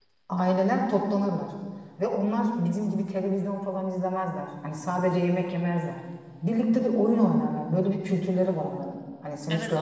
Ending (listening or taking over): taking over